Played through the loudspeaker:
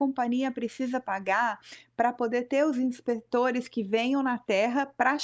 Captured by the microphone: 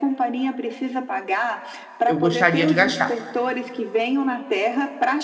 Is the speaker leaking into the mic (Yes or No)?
Yes